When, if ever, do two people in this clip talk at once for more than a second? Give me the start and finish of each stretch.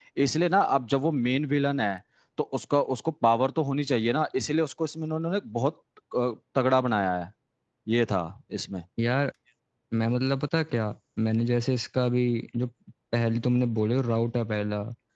none

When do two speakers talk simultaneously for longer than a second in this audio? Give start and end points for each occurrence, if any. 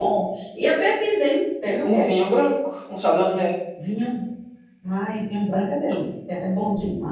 none

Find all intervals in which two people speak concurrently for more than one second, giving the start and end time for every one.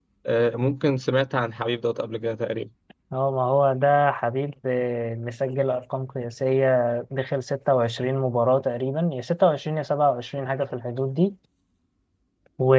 none

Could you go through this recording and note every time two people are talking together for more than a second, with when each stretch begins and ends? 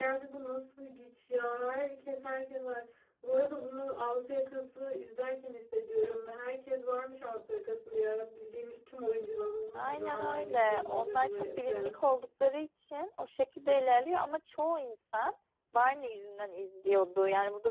9.8-12.0

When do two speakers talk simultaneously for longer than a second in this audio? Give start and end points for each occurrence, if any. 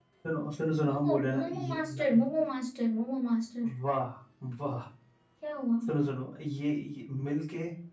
0.9-2.3

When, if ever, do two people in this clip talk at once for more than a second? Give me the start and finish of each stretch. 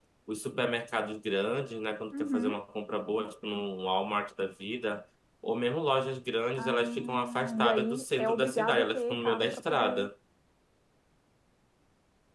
6.6-10.1

